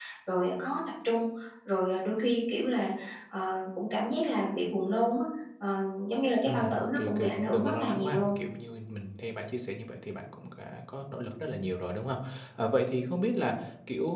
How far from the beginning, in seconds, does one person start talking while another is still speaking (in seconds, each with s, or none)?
6.5 s